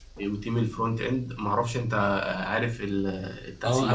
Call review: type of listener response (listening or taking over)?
taking over